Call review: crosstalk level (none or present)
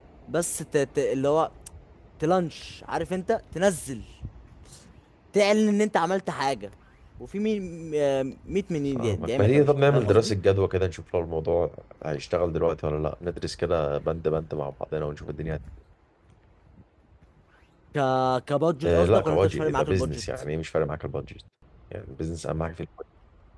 present